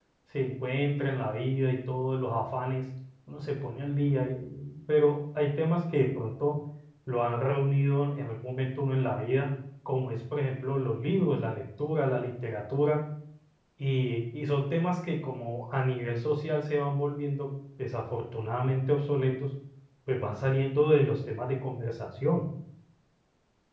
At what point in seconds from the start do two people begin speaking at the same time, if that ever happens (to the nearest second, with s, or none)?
none